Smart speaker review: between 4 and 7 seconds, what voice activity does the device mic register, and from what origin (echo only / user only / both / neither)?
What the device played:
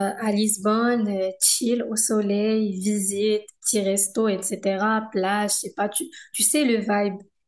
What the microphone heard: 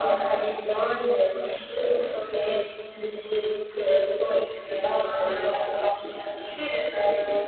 echo only